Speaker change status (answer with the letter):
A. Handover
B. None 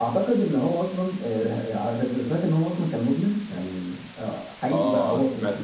A